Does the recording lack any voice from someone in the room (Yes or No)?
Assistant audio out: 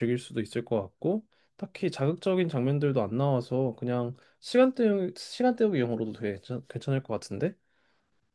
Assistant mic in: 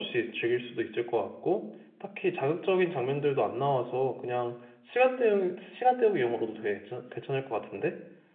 Yes